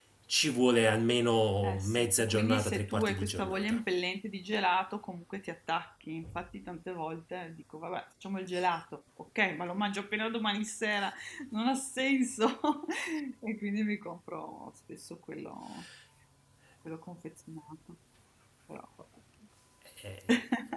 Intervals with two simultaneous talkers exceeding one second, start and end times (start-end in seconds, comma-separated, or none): 1.6-3.8